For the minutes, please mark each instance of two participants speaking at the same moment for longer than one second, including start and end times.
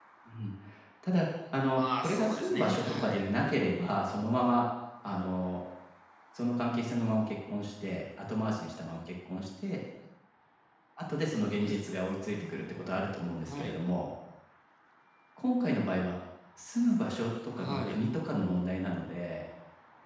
1.7-3.2

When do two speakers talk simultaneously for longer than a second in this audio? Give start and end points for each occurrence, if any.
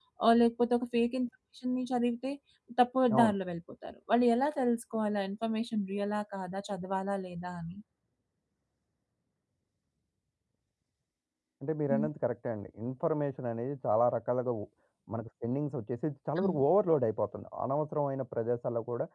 none

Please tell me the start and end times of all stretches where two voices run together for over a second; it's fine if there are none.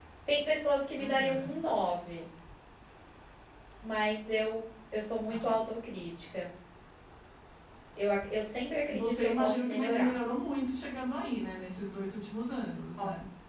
8.9-10.1

